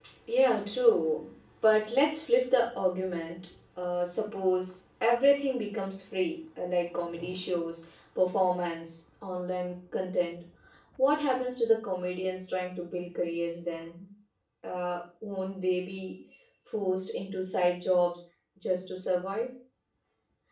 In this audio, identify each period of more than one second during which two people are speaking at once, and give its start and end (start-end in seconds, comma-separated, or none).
none